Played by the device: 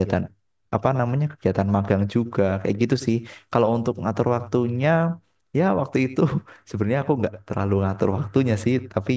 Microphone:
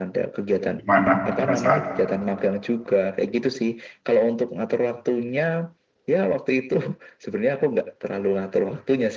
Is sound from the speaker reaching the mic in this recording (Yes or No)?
Yes